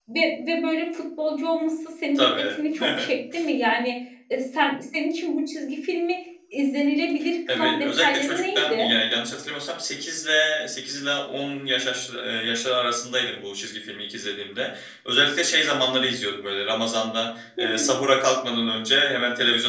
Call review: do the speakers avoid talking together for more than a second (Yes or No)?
No